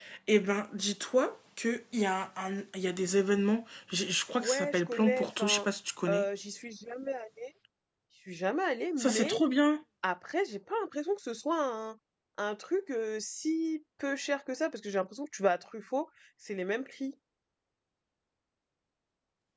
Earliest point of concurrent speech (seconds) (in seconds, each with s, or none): 4.4 s